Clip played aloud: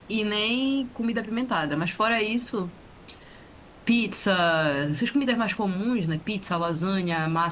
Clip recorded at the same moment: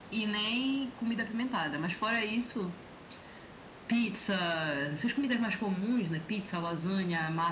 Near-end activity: none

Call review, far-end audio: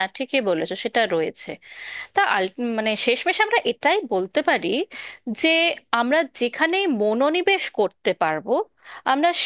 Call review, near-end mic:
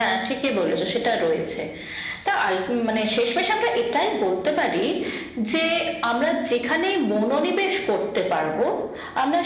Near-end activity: none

